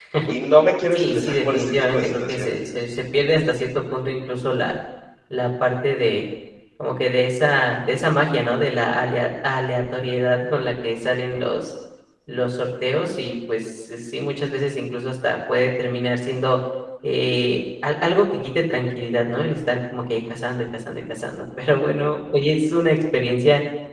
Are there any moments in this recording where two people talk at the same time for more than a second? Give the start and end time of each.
0.9-2.6

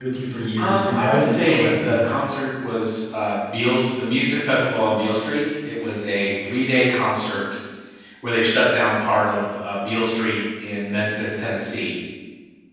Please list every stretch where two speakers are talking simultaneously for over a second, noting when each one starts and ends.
0.6-2.0

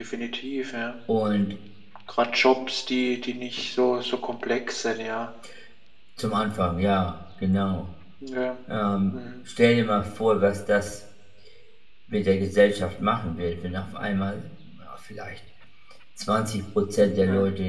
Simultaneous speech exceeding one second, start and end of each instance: none

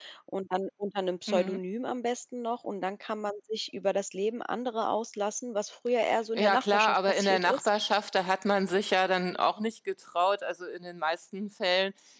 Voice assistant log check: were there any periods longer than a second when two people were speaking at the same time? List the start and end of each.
6.4-7.7

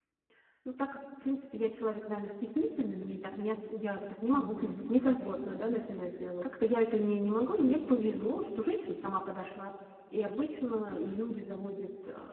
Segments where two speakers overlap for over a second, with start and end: 4.3-5.7

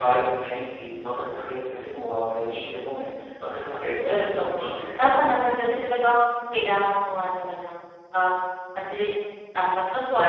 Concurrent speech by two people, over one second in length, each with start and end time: 3.8-5.3

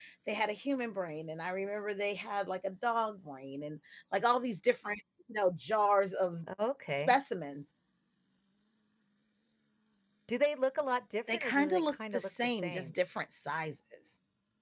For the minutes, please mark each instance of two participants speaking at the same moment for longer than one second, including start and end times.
11.3-12.9

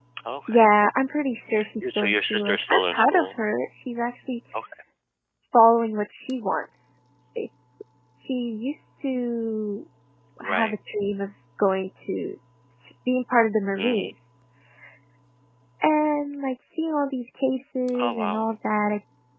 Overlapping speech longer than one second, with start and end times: 1.8-3.4

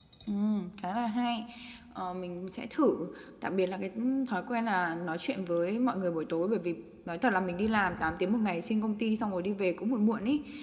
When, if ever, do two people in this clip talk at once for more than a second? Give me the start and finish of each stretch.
none

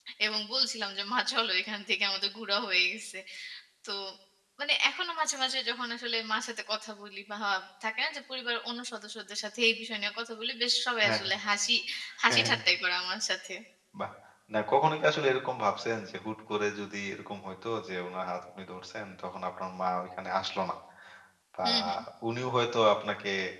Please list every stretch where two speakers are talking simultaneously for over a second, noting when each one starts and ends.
none

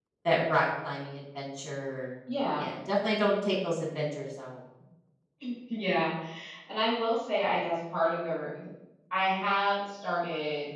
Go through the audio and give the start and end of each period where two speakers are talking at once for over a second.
none

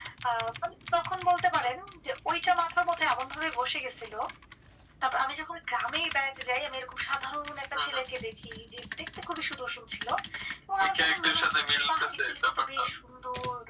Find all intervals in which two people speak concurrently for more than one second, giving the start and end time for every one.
10.8-12.8

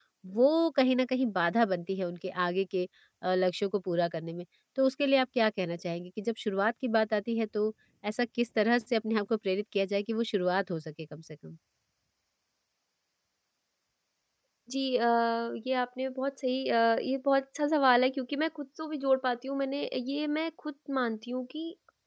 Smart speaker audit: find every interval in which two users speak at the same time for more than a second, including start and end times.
none

